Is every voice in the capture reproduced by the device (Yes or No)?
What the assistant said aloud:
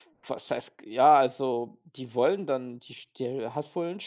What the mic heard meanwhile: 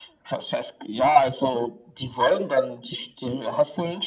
Yes